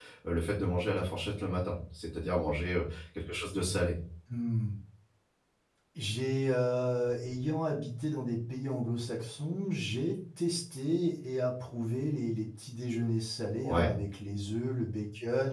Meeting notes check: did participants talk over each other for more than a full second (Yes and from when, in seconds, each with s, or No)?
No